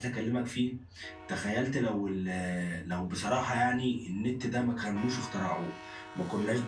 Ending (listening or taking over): listening